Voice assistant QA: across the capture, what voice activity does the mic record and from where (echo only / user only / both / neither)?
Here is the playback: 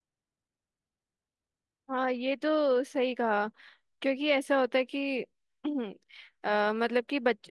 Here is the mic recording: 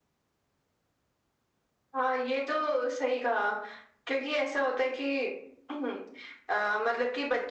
echo only